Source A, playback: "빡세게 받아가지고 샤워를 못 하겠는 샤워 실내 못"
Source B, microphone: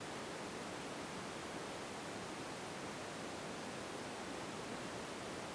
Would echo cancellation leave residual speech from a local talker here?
No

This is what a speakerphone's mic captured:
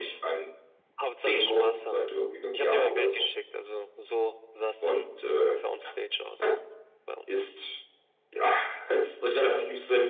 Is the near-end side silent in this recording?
Yes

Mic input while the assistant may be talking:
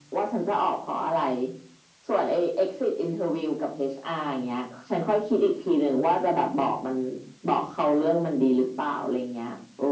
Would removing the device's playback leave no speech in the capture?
Yes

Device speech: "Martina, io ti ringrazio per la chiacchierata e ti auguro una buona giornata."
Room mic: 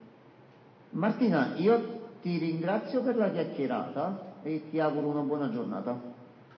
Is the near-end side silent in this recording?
Yes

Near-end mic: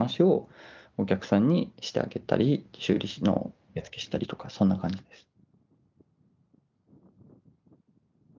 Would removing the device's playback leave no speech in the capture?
No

